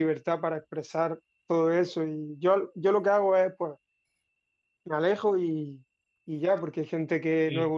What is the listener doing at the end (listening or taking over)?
listening